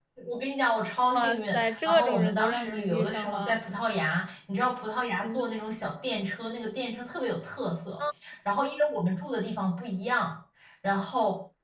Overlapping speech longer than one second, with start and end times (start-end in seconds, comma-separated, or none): 1.1-3.6